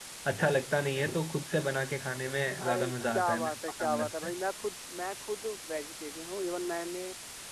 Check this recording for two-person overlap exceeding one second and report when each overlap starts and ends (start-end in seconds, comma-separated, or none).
2.6-4.3